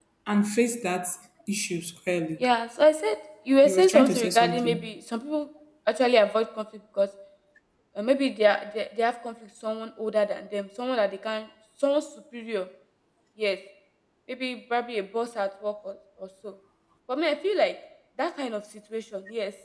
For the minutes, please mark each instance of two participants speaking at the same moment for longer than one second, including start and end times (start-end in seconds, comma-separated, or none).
3.6-4.9